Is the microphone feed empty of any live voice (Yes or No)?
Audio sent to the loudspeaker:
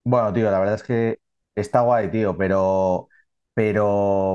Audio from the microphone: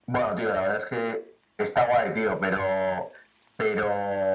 Yes